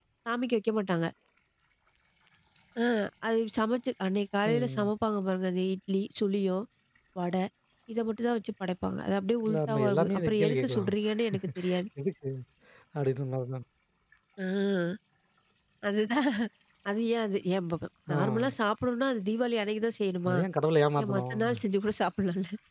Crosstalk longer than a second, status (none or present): present